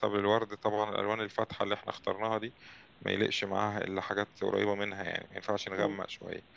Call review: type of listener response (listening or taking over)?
listening